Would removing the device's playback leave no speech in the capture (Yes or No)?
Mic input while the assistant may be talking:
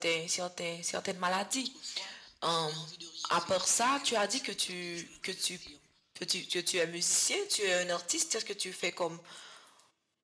No